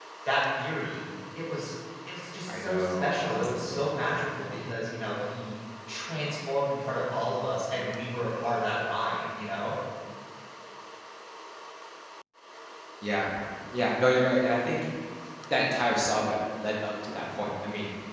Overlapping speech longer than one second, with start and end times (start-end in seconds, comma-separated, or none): 2.5-4.0